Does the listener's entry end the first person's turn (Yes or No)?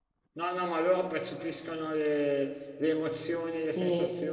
No